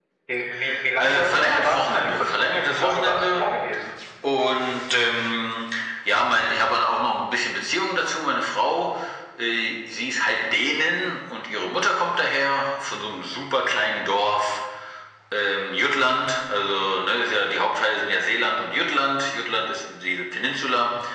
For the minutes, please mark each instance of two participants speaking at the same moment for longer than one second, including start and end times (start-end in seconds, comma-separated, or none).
1.0-3.4